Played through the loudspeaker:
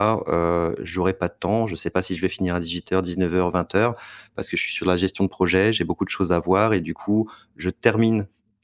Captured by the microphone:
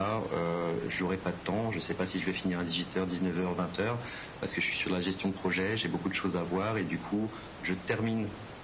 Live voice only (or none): none